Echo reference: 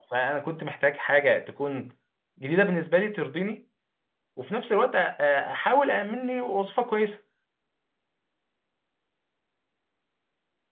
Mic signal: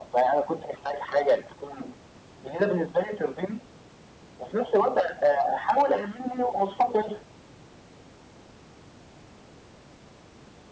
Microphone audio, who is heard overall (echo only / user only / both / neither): echo only